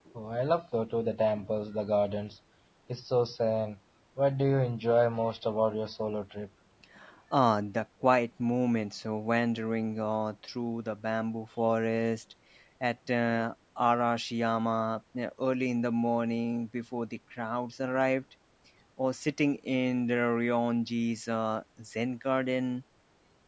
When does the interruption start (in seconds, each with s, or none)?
none